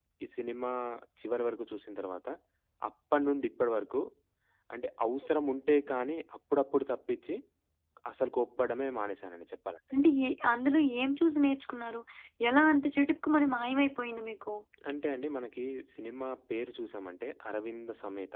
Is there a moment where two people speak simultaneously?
No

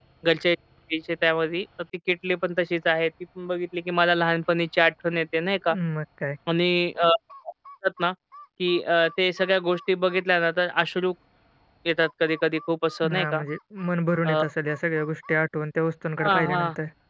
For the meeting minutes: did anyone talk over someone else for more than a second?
No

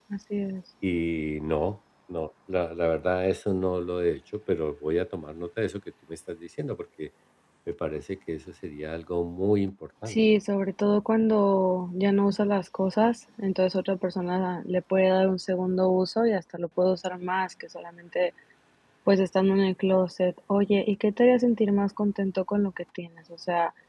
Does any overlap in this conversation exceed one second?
No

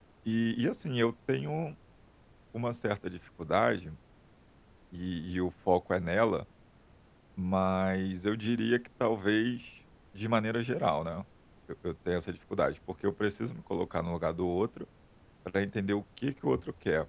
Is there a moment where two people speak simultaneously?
No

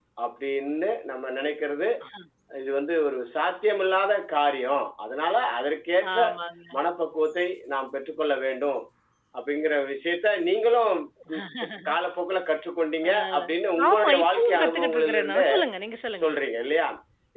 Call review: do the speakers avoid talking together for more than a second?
No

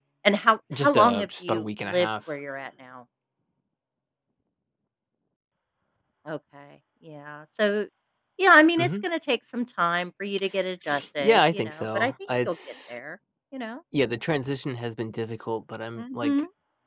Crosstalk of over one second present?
Yes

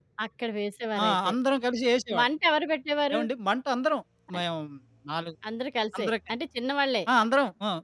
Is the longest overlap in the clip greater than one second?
No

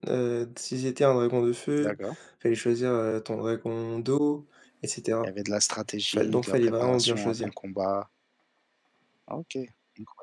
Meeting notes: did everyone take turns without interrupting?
No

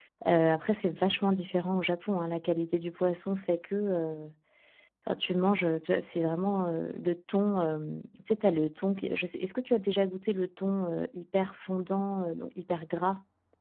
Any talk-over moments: No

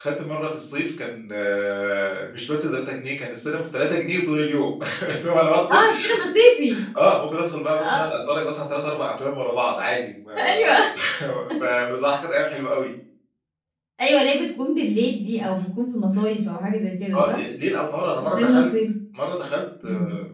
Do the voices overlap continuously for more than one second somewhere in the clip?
No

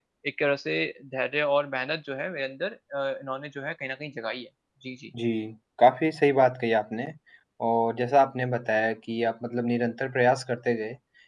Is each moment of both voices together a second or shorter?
Yes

